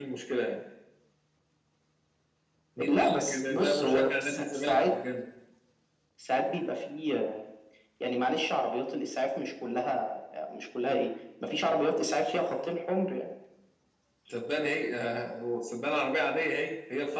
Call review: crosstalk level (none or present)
present